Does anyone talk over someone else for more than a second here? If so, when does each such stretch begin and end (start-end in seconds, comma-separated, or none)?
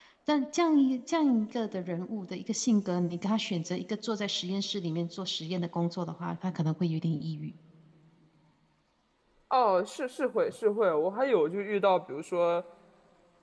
none